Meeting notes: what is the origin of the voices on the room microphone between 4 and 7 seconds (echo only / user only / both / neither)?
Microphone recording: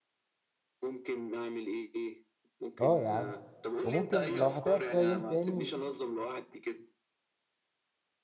both